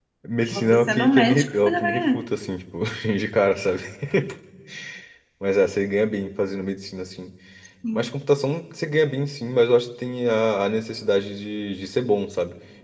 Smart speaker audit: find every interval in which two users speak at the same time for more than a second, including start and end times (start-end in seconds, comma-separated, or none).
0.5-2.2